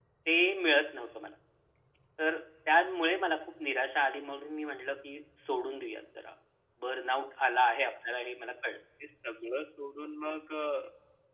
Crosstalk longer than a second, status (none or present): none